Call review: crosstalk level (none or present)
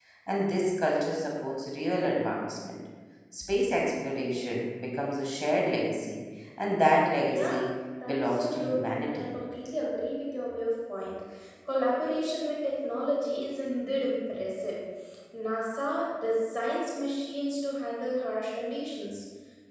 present